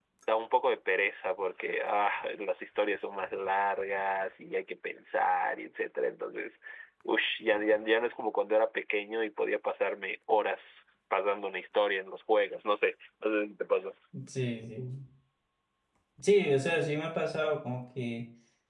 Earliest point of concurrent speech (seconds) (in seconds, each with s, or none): none